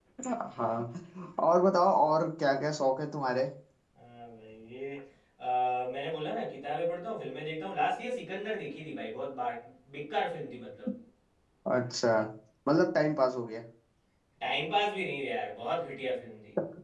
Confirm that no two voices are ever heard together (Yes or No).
Yes